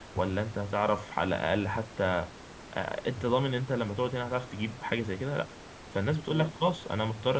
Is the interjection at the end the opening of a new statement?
No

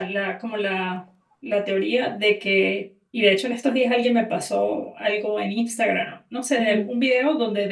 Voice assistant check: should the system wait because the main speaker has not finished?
Yes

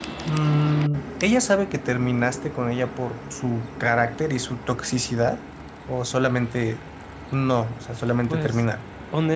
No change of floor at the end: No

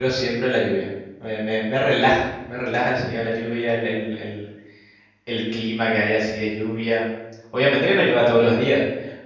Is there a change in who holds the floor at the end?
No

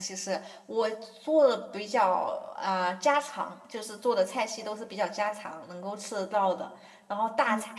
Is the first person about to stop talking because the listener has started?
No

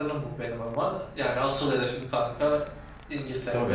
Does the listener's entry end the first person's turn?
Yes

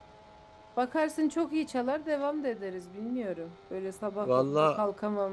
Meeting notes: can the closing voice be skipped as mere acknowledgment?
Yes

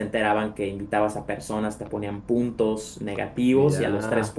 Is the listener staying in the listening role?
Yes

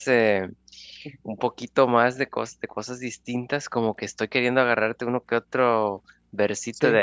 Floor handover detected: No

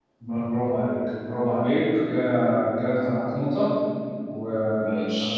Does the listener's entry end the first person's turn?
No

